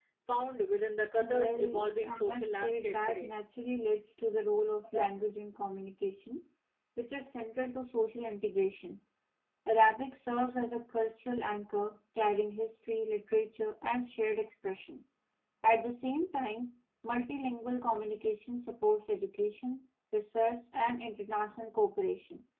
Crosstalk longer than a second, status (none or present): present